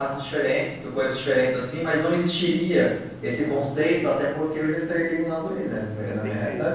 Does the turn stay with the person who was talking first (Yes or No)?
No